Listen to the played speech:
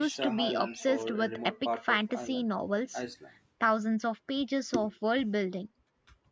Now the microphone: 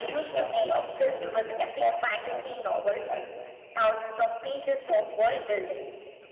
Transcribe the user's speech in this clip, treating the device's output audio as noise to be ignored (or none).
none